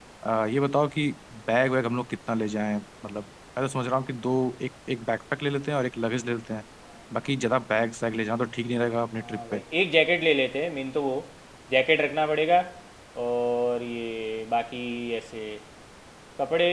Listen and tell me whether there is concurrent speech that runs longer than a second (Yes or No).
No